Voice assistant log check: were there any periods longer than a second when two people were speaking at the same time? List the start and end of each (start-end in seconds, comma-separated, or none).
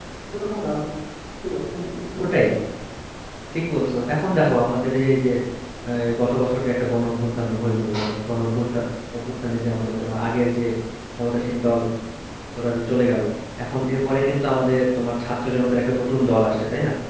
none